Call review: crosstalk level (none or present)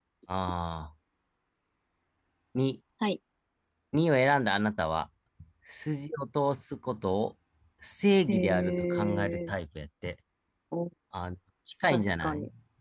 present